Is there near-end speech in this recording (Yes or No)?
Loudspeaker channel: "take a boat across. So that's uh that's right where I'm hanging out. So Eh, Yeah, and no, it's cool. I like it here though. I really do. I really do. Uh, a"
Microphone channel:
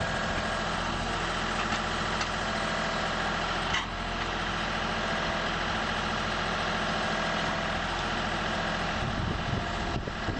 No